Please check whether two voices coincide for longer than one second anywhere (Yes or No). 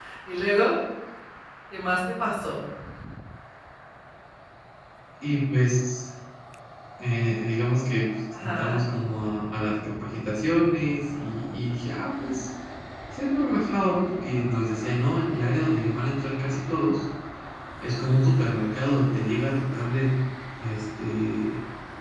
No